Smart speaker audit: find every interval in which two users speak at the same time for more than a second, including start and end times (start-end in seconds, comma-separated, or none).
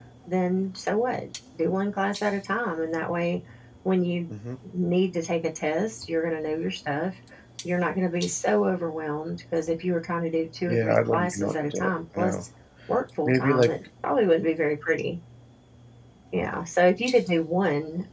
10.7-12.3